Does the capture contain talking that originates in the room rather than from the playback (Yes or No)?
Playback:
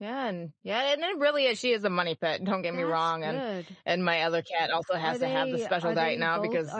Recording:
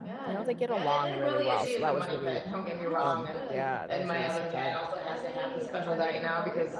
Yes